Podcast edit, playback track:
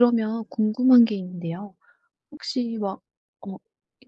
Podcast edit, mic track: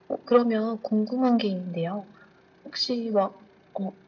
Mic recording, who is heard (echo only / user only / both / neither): echo only